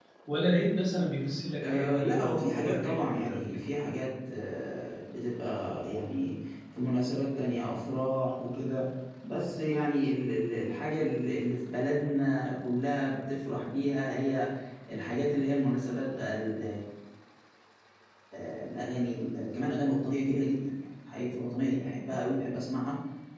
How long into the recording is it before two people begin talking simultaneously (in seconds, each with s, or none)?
1.6 s